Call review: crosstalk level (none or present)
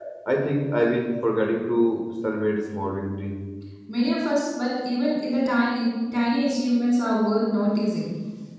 none